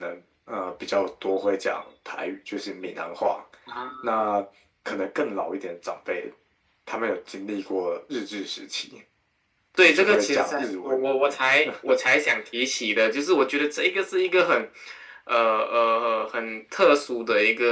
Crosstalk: present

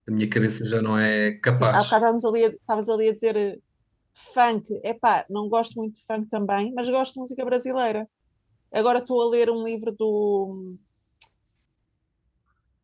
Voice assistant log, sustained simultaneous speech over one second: none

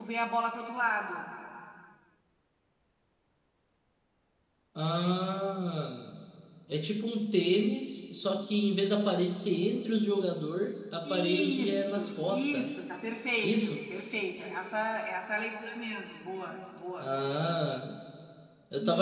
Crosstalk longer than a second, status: present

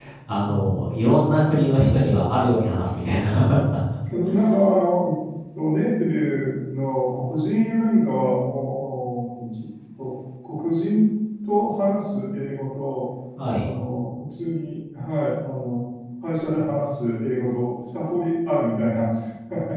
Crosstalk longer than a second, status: none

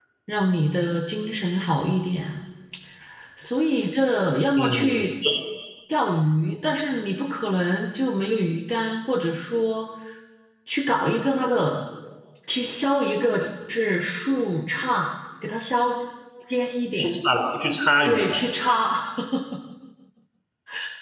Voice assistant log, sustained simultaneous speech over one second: none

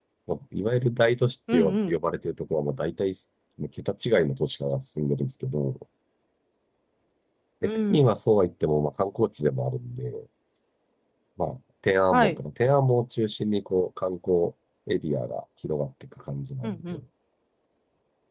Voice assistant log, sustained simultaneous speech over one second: none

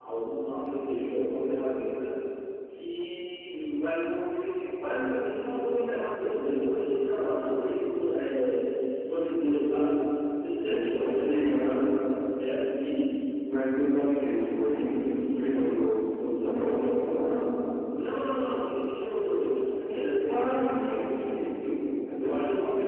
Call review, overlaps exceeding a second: present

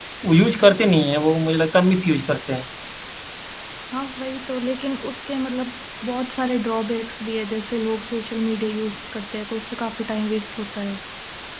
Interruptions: none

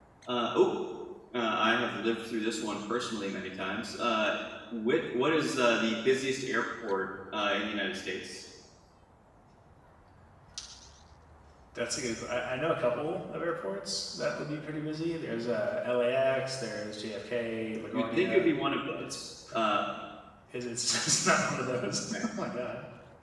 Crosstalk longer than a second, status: none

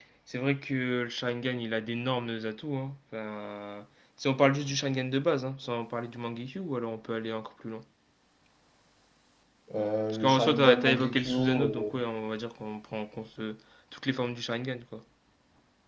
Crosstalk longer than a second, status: present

